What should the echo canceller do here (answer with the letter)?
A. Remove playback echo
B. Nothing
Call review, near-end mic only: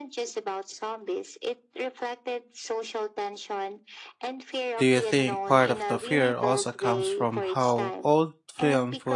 A